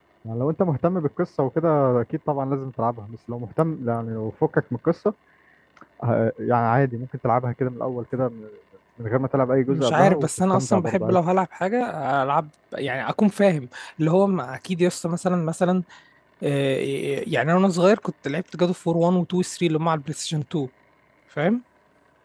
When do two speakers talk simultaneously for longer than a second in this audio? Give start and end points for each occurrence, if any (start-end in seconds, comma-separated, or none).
9.7-11.2